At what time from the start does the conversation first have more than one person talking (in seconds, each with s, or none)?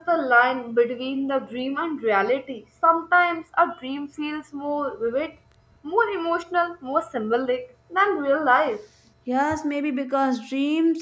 none